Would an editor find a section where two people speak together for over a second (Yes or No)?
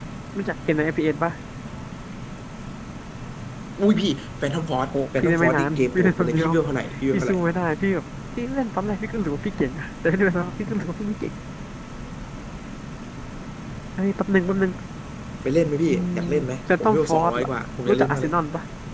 Yes